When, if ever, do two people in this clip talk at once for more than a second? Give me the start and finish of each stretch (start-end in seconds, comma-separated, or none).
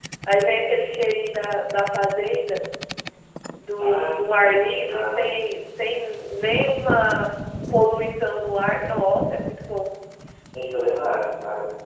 3.8-5.2